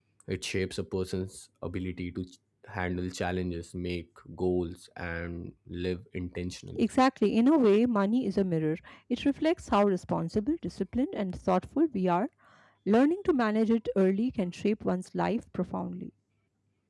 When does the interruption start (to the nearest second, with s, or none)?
none